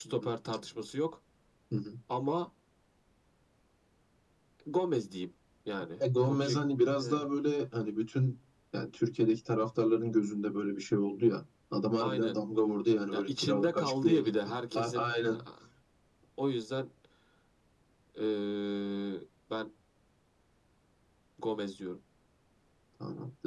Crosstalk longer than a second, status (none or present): present